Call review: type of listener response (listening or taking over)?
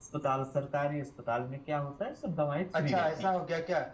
taking over